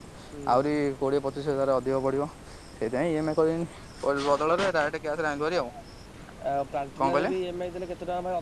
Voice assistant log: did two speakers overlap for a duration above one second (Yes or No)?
No